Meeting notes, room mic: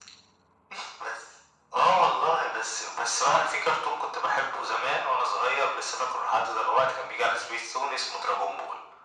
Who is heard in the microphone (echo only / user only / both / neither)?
echo only